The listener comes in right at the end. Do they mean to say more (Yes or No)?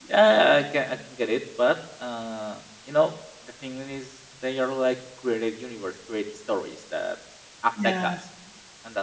No